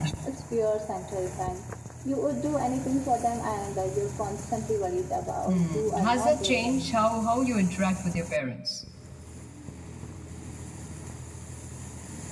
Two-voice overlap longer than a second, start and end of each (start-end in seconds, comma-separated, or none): 5.5-7.1